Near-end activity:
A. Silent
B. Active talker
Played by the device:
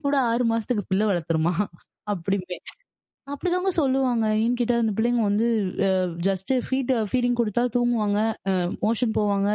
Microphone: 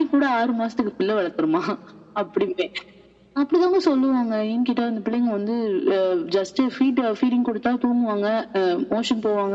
A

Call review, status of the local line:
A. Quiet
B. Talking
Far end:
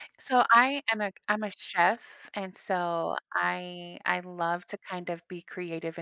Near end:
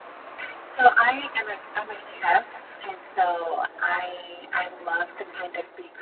A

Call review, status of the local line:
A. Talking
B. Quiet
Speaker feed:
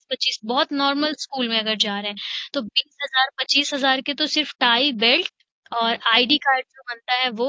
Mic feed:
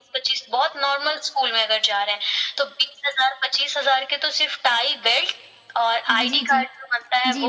A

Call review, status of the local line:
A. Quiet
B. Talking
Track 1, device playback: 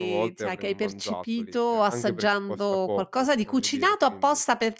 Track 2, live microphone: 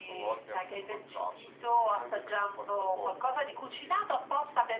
A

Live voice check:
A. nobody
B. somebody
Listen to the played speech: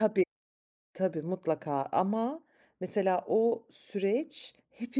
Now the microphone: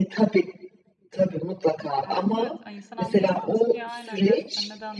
B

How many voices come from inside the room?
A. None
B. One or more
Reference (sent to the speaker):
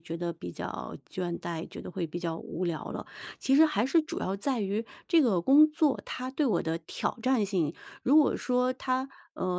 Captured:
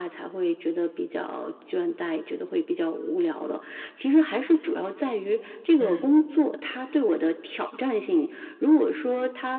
B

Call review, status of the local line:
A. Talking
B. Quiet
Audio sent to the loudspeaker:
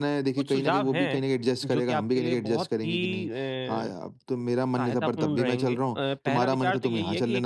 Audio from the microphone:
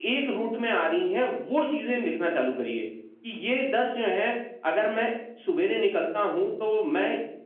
A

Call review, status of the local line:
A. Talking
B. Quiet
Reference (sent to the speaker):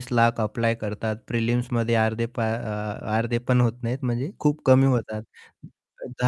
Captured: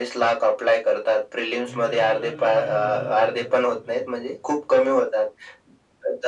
A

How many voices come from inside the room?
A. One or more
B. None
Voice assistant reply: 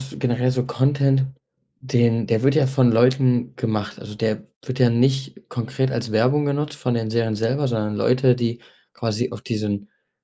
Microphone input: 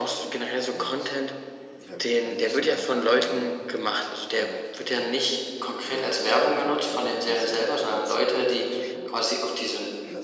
A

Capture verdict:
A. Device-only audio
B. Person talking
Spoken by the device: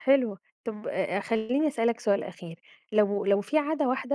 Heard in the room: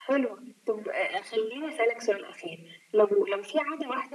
A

